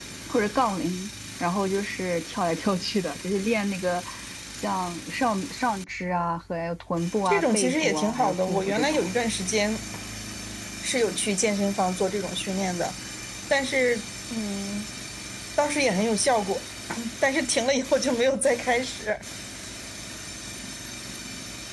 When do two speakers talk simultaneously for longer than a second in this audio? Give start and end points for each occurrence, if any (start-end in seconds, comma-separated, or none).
7.2-9.1